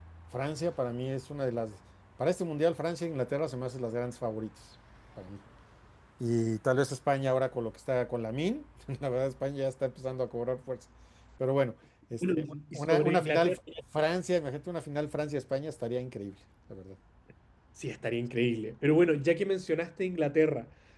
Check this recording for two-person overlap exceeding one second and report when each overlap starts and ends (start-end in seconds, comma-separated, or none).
12.2-13.6